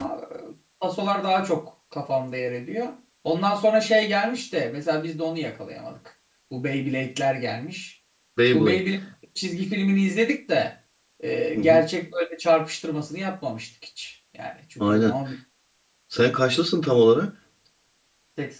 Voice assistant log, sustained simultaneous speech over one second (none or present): none